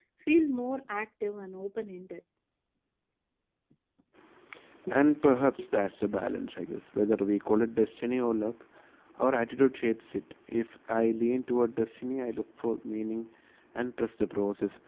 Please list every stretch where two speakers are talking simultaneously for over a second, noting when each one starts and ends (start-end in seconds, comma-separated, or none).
none